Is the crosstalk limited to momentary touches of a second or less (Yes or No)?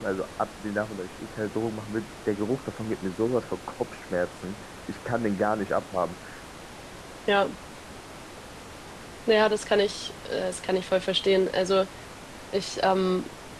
Yes